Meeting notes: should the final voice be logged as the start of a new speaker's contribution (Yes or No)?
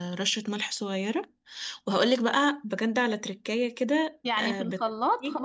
Yes